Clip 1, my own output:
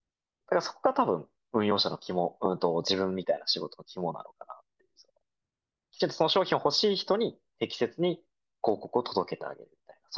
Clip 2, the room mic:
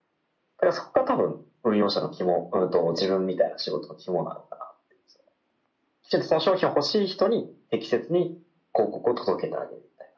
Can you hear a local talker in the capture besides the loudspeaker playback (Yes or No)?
No